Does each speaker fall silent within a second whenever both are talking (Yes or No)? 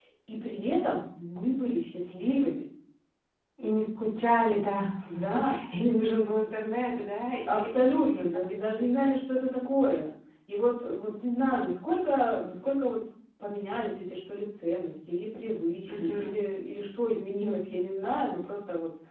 No